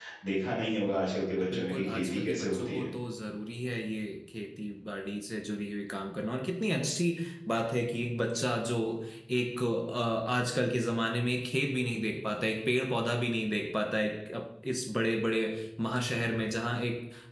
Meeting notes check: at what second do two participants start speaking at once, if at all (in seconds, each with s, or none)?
1.5 s